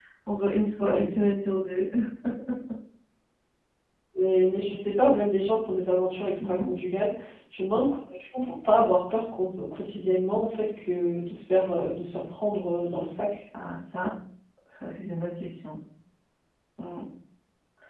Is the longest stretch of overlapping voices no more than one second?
Yes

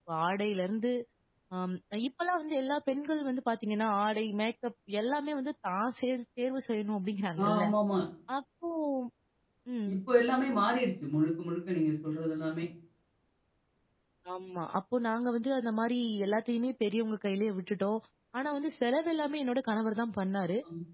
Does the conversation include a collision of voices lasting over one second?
No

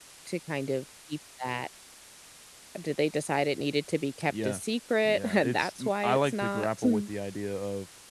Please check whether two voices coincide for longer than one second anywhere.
Yes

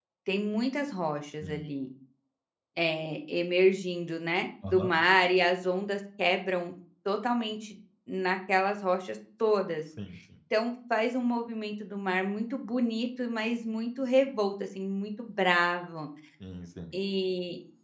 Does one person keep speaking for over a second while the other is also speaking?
No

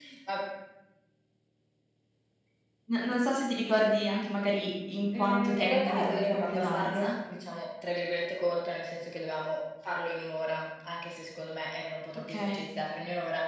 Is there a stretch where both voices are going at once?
Yes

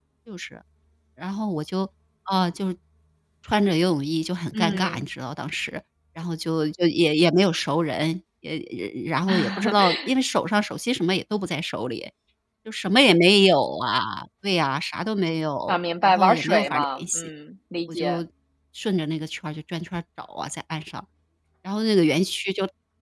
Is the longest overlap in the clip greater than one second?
Yes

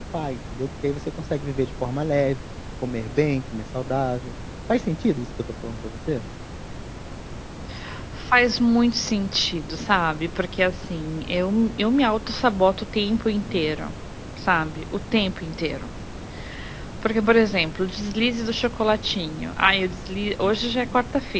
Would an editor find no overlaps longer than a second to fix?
Yes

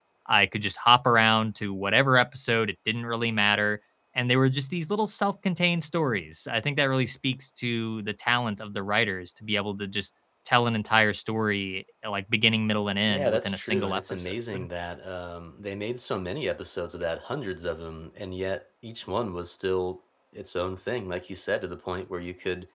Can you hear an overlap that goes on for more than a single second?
Yes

